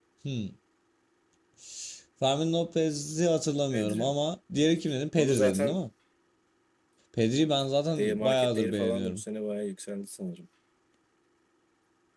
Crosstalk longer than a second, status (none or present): present